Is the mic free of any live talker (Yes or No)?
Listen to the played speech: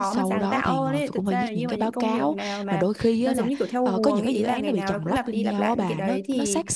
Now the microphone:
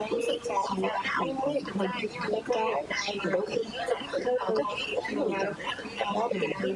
Yes